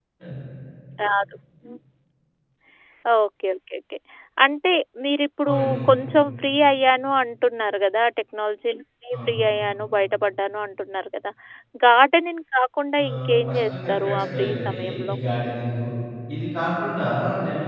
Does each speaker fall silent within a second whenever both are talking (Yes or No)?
No